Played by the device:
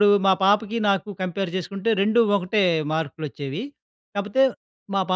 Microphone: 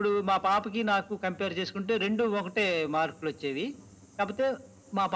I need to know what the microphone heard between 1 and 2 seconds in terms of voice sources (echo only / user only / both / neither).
echo only